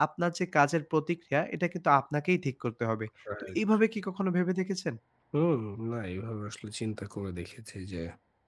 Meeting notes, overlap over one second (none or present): none